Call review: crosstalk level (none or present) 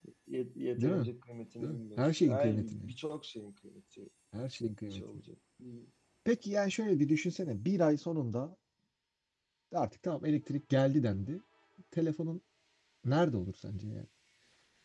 present